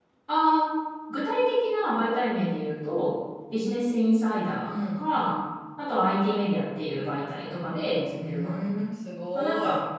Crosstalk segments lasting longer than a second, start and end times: none

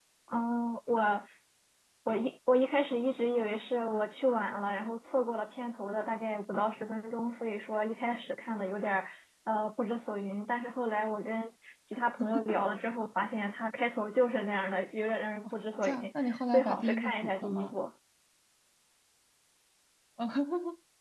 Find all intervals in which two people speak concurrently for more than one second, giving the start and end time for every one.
15.8-17.7

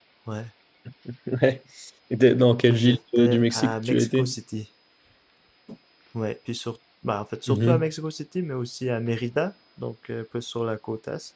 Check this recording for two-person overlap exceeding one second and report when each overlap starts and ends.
2.7-4.3

